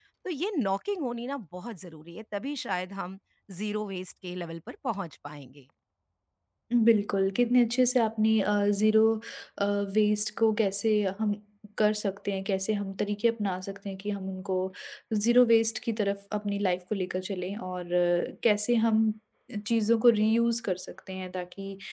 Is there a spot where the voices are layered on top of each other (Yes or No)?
No